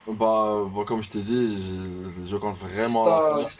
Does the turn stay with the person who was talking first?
No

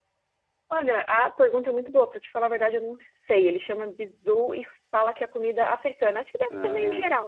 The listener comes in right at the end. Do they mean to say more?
No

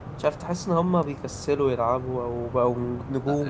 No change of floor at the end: No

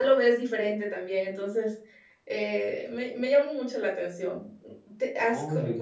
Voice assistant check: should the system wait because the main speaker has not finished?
Yes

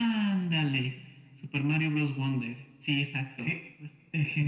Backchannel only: No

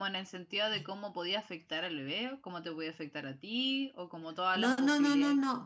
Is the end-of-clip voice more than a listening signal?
Yes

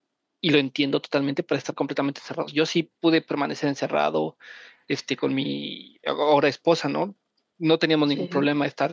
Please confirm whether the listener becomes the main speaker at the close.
No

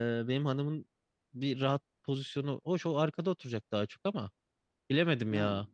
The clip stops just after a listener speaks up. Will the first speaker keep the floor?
Yes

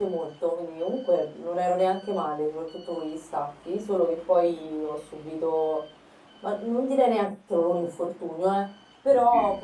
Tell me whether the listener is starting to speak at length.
No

